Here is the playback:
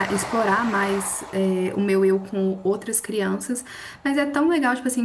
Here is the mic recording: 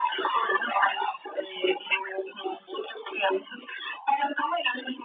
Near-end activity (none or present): none